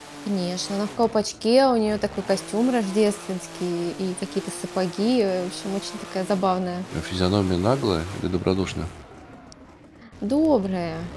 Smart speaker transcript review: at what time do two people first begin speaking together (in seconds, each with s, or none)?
none